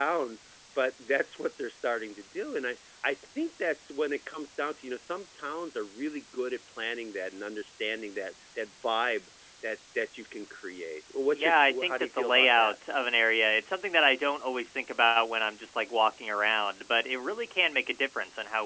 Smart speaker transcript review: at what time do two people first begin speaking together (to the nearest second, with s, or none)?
11 s